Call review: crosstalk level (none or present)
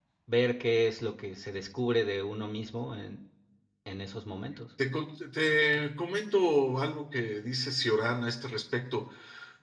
none